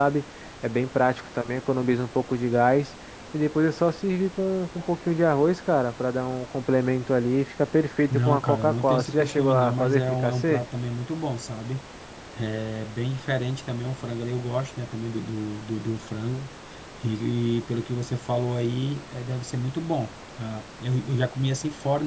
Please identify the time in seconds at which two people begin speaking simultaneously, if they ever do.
8 s

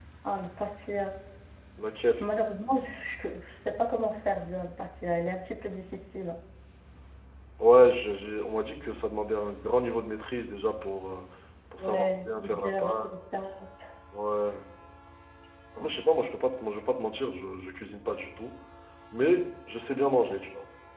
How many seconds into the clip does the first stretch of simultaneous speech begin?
12 s

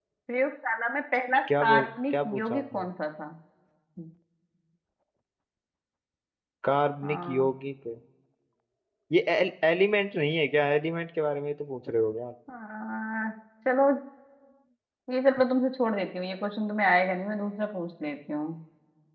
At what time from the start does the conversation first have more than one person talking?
2 s

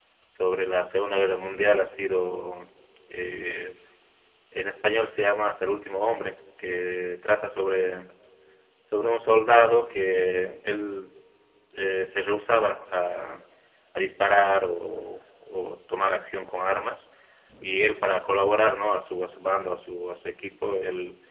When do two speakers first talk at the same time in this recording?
none

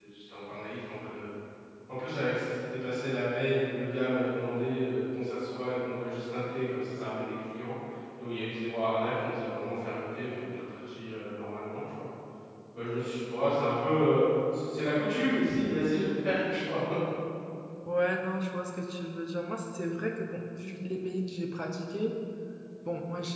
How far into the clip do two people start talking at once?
none

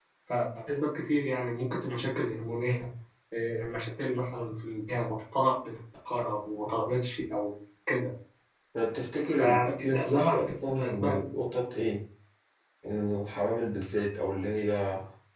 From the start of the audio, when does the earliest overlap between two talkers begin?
9 s

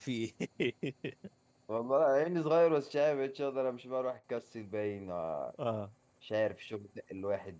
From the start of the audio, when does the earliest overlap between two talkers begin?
none

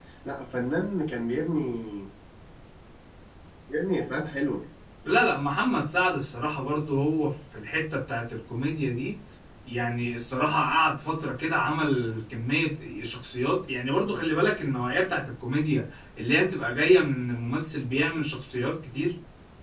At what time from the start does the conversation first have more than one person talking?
none

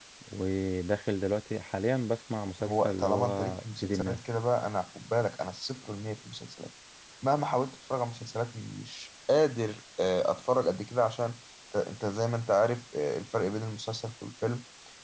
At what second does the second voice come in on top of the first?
3 s

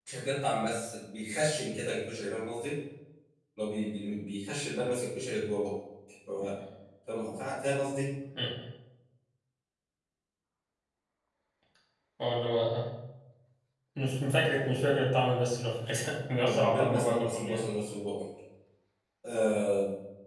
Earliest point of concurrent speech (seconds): 16 s

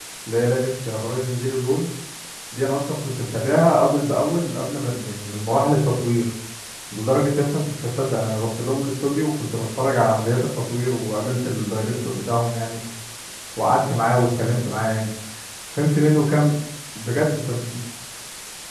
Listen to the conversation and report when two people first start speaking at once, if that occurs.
none

